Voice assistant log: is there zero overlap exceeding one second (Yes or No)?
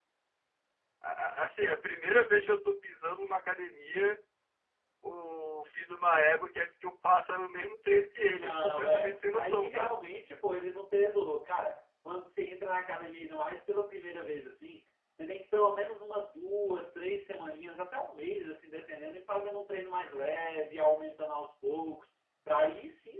No